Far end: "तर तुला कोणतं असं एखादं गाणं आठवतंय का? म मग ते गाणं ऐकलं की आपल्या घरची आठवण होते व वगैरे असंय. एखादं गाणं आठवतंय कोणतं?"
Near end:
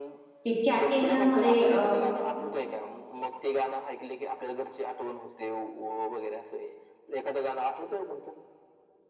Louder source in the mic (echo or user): user